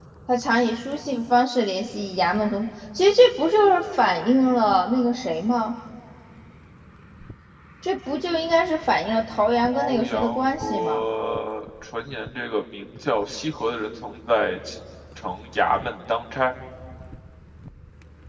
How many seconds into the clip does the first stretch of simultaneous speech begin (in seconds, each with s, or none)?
9.7 s